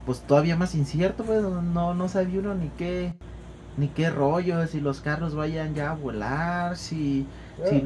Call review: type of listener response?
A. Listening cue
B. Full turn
B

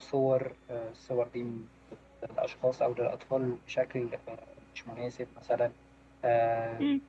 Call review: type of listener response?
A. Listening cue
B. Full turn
B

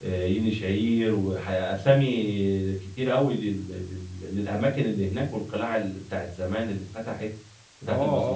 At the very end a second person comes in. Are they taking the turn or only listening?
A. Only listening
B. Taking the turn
B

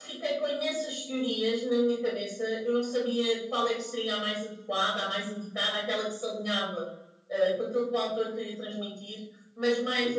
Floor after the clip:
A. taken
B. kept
B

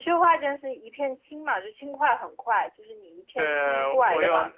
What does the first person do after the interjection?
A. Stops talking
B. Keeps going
A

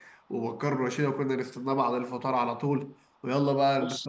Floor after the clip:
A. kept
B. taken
A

